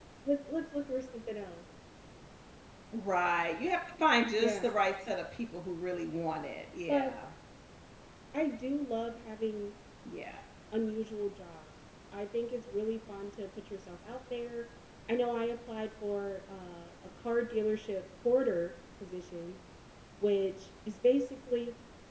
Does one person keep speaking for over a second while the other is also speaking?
No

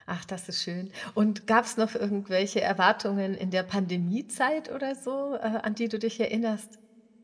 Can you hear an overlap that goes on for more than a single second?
No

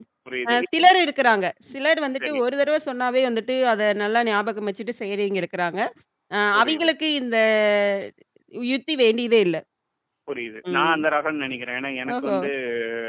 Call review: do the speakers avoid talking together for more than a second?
Yes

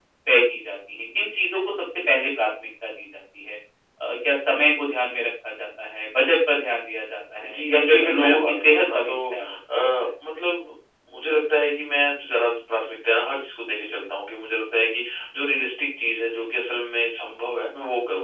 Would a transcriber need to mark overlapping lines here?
Yes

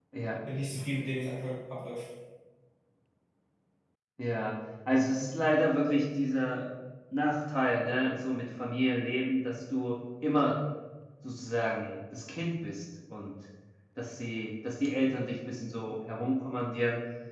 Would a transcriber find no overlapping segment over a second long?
Yes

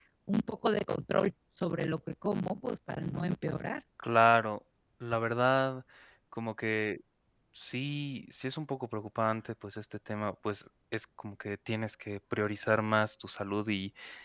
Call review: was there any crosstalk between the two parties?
No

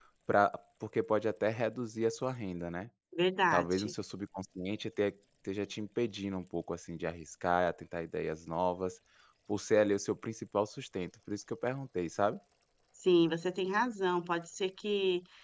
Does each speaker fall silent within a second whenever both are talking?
Yes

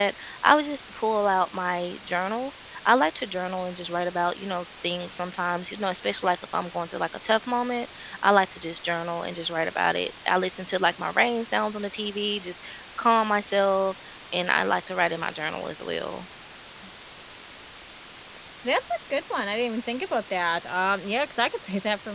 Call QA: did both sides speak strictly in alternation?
Yes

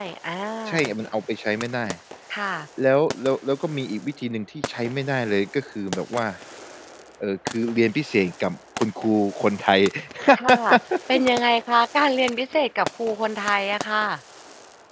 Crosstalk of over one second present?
No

